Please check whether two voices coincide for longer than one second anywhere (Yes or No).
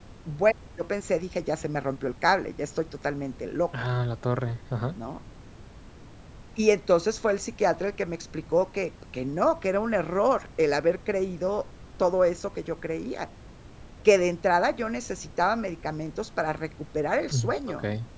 No